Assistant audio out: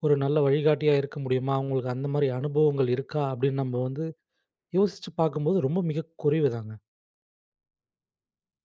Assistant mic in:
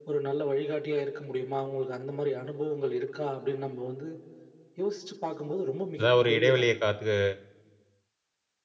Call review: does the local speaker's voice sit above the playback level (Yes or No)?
Yes